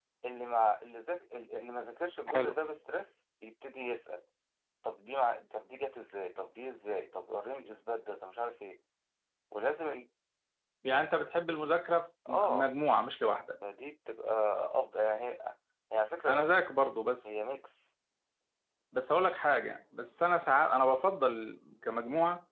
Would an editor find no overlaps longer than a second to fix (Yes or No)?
Yes